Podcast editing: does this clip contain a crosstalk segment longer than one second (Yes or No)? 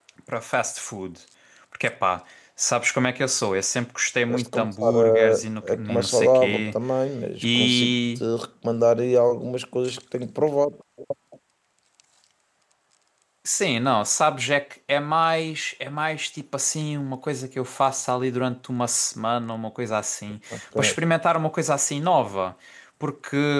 Yes